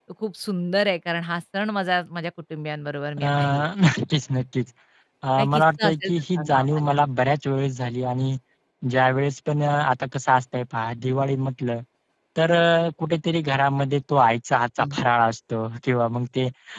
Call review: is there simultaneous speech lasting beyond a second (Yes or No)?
Yes